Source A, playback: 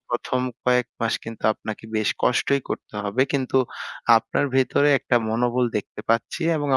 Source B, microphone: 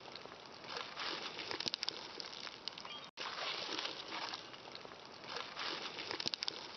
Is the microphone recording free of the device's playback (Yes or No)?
Yes